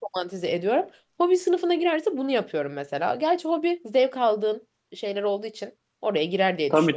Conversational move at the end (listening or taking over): taking over